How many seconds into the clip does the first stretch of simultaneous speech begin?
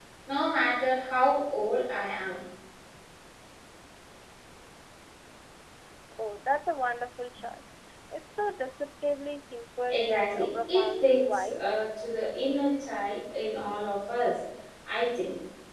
9.9 s

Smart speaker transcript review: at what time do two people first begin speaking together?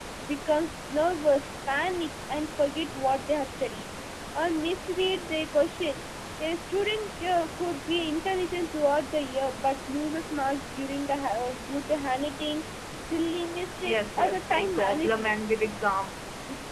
13.8 s

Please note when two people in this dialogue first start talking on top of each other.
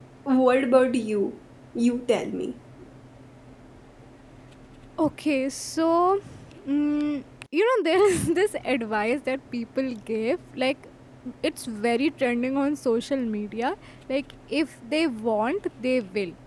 none

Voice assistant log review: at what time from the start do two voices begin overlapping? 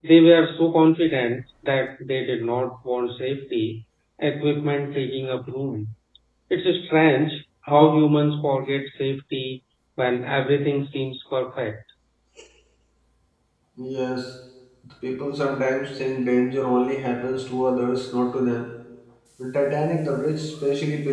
none

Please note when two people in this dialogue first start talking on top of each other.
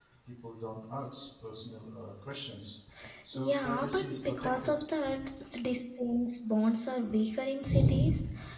3.3 s

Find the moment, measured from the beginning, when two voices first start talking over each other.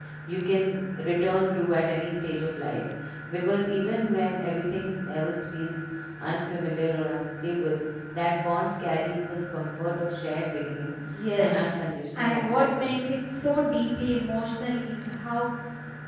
11.4 s

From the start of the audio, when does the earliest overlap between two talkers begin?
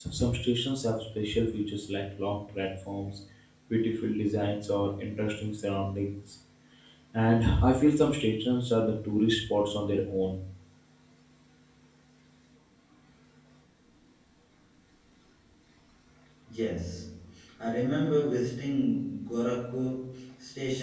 none

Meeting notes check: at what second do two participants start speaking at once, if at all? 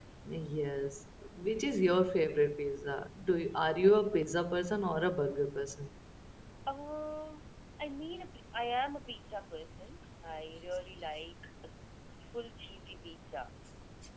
none

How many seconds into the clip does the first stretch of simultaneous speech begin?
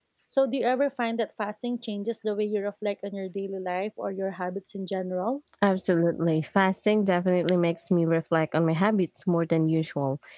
none

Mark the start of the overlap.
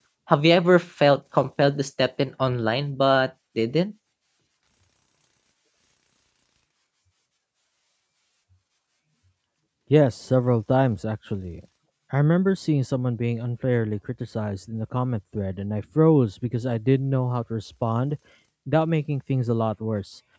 none

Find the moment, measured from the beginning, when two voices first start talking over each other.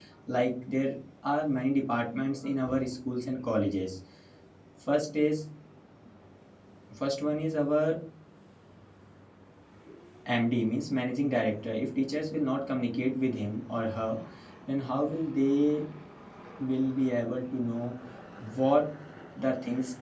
none

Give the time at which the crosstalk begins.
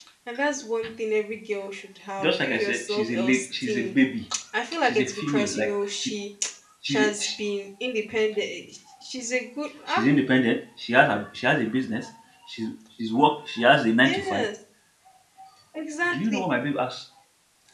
2.2 s

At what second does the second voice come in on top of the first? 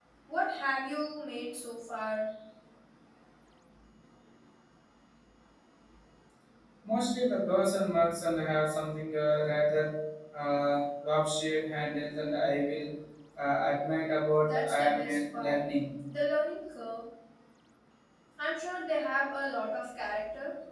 14.3 s

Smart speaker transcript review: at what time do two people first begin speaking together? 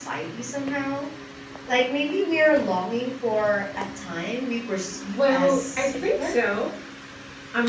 5.2 s

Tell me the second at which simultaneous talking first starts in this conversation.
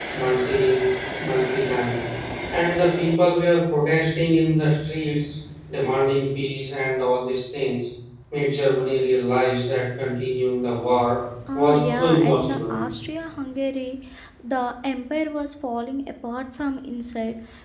11.5 s

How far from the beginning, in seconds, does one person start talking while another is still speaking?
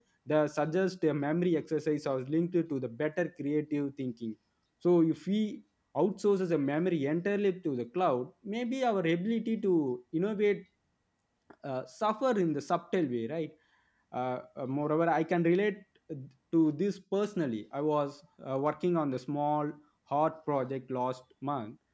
none

